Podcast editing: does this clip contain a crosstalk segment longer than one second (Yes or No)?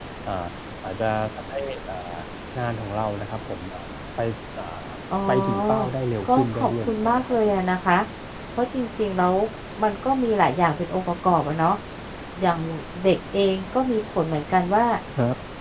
Yes